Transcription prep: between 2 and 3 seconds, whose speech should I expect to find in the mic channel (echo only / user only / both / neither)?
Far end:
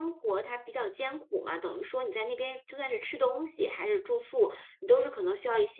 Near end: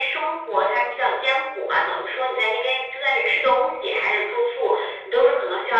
echo only